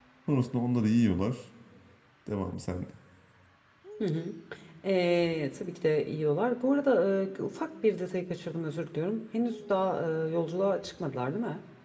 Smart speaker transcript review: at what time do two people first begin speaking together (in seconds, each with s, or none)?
none